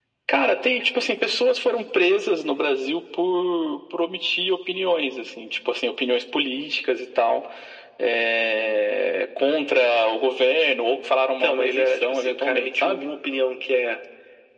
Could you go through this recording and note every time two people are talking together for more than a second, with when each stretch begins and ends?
11.4-13.1

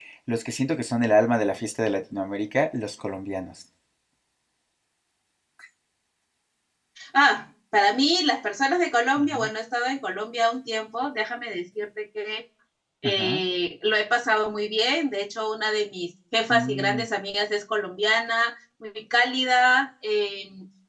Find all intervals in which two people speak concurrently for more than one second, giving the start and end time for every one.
none

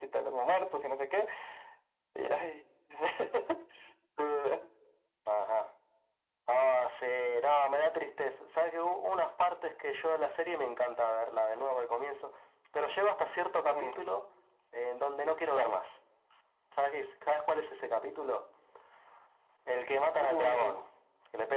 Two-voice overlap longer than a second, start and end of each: none

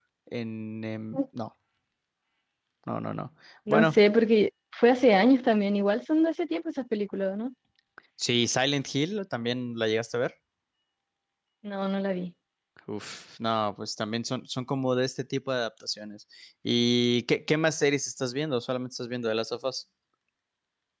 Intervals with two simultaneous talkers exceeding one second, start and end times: none

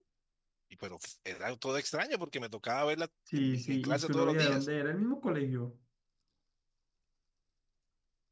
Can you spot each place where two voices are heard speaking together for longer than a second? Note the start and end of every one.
3.4-4.7

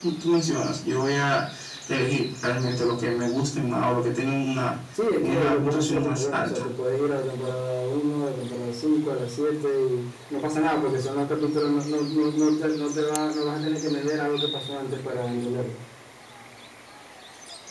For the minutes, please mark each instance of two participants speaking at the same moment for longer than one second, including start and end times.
5.2-6.7

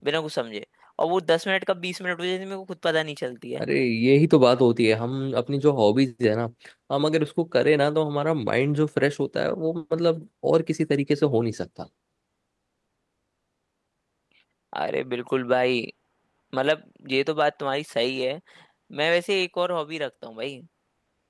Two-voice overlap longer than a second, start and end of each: none

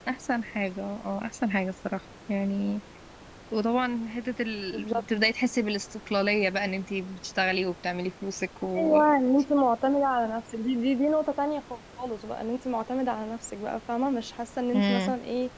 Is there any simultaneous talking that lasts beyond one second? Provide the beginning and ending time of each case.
none

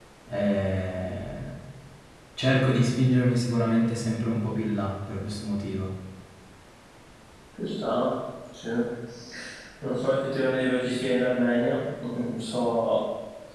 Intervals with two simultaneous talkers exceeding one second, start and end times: none

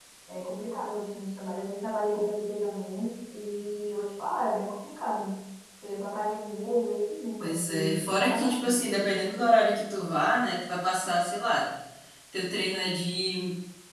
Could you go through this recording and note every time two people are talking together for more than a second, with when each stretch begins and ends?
7.4-9.1

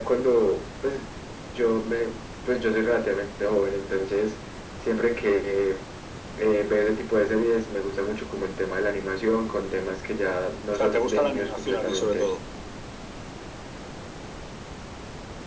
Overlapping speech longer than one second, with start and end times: 10.7-12.3

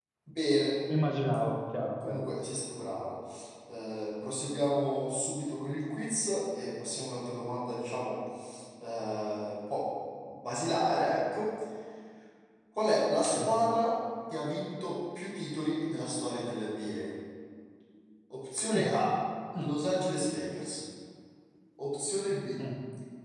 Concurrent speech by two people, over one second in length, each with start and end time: none

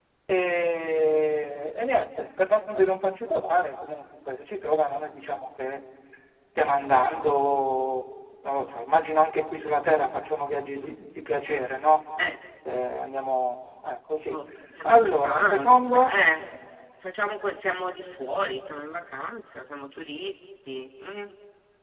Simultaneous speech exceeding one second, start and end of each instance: 14.8-16.1

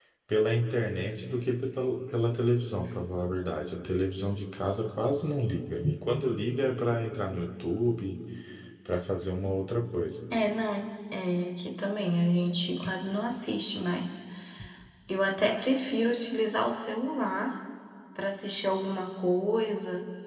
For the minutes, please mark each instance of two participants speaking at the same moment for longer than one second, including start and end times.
none

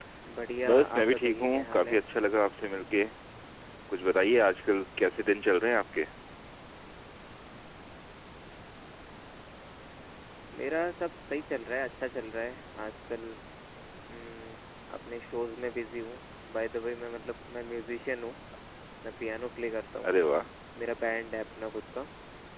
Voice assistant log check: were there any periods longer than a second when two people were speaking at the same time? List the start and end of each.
0.7-2.0

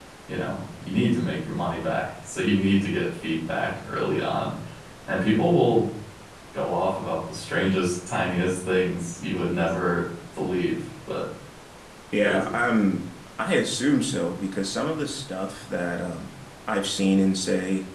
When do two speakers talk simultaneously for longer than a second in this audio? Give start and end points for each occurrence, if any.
none

